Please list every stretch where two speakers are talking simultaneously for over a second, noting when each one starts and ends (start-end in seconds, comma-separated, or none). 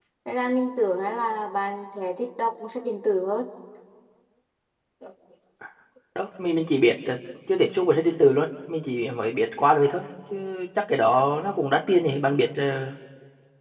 none